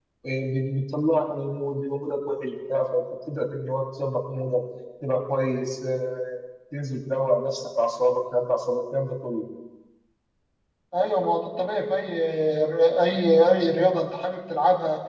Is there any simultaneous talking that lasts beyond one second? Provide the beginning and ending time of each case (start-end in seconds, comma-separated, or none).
none